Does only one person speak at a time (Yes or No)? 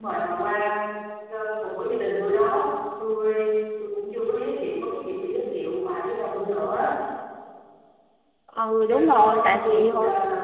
No